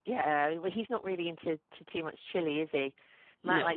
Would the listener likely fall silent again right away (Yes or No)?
Yes